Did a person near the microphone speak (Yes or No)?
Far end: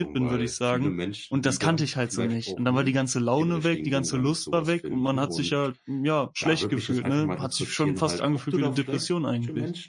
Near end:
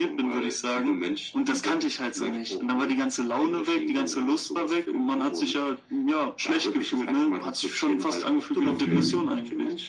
Yes